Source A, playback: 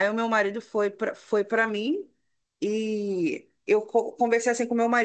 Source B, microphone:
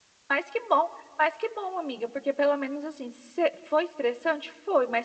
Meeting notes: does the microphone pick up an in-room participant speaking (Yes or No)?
Yes